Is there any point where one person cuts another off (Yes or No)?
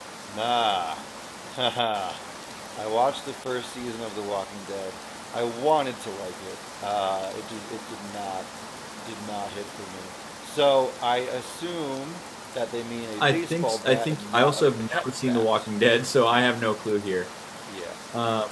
Yes